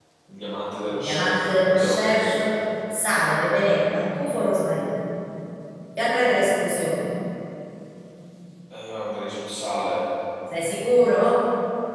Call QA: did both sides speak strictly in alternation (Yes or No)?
No